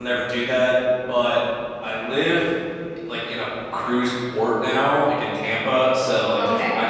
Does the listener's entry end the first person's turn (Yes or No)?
No